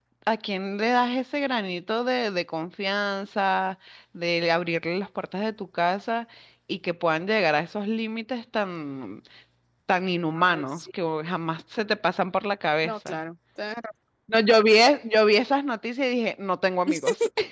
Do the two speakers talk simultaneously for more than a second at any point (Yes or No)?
No